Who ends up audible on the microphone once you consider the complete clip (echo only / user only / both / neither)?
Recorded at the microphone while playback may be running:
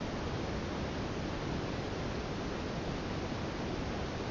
neither